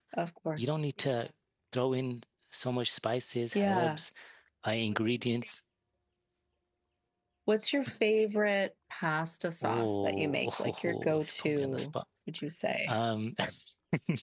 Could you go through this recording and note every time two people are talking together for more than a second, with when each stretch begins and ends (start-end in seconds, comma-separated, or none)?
9.6-11.9